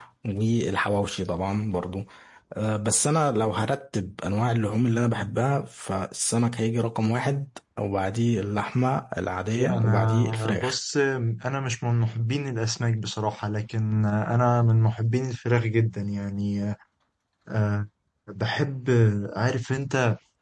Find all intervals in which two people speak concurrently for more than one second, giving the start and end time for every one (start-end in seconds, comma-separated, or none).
9.6-10.8